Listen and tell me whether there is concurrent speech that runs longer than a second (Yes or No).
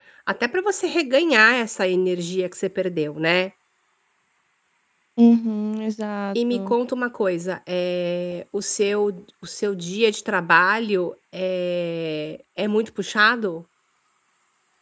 No